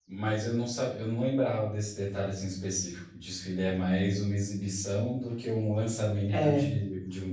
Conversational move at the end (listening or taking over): listening